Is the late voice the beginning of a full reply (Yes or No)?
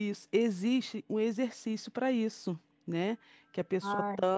No